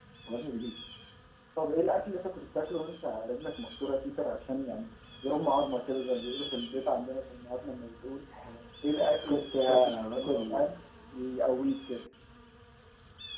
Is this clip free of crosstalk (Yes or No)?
No